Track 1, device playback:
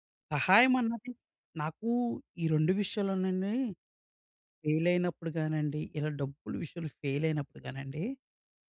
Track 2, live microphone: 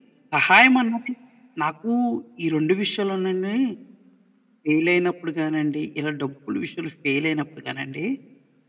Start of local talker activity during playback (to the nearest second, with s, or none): none